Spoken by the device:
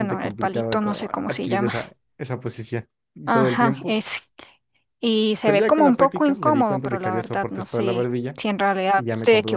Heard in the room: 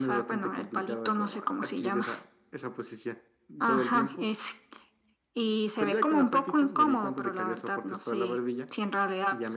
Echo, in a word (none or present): present